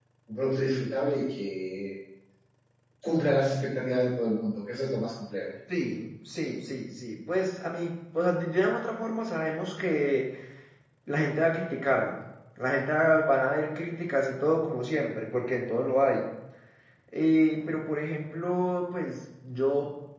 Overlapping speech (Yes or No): No